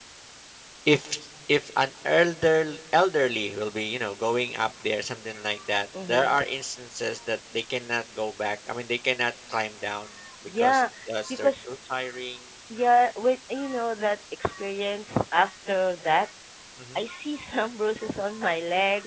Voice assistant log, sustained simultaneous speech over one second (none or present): none